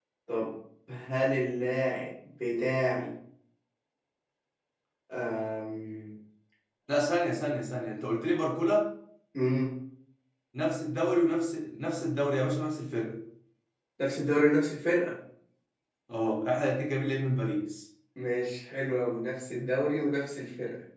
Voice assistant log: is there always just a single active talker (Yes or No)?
Yes